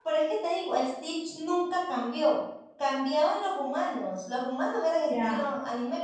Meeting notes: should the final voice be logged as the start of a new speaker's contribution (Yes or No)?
Yes